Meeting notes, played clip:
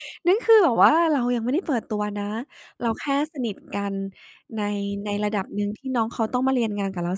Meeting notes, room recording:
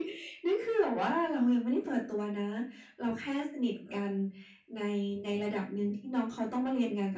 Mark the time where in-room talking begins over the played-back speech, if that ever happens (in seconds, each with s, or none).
none